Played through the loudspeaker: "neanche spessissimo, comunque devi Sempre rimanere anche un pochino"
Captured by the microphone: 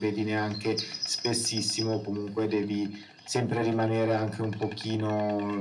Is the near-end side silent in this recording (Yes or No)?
Yes